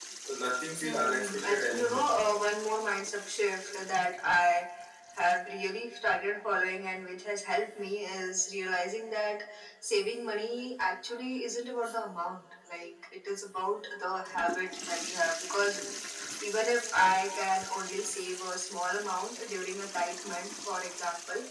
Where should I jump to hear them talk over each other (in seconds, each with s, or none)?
0.8 s